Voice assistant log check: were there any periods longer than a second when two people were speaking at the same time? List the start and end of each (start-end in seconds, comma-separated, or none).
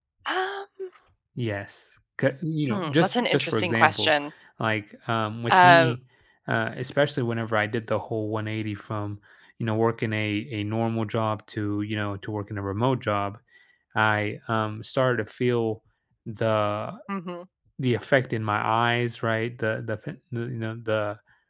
2.7-4.1